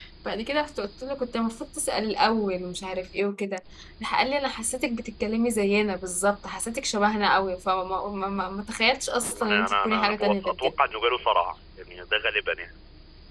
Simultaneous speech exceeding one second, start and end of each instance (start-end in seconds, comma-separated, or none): 9.3-10.7